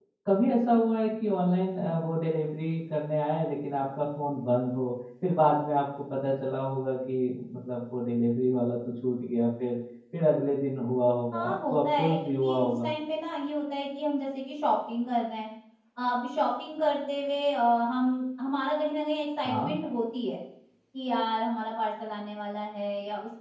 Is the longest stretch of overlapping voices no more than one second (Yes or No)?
No